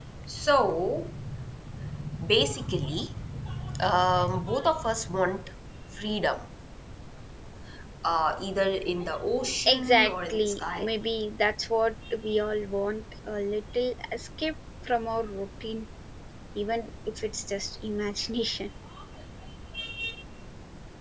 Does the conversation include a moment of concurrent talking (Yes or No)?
Yes